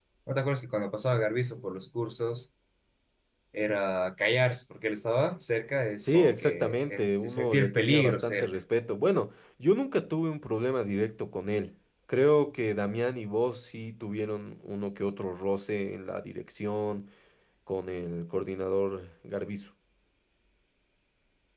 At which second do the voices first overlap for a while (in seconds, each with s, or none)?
6.0 s